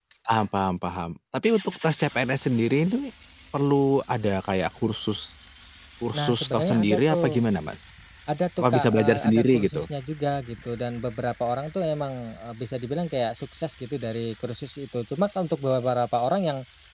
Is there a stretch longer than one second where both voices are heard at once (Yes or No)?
Yes